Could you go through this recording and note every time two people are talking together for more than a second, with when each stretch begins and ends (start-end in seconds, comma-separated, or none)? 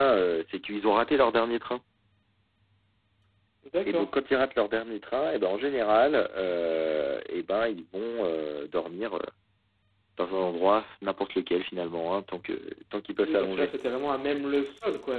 none